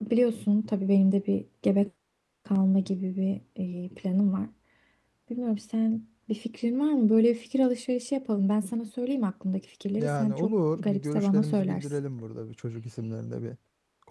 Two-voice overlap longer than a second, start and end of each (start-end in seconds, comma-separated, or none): 10.0-11.8